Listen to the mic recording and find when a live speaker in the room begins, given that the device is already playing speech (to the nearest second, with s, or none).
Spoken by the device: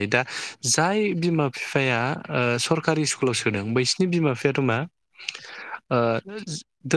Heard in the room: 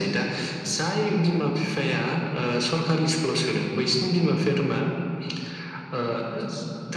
none